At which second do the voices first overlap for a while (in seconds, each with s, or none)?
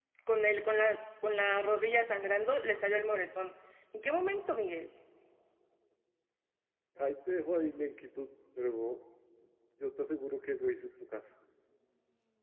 none